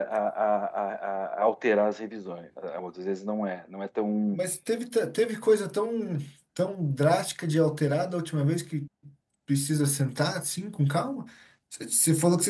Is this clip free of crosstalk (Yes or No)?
Yes